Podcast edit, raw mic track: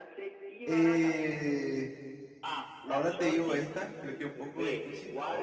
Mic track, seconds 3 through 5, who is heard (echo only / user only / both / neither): both